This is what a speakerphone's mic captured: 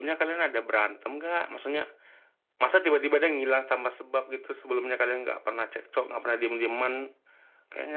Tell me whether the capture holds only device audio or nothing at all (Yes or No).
Yes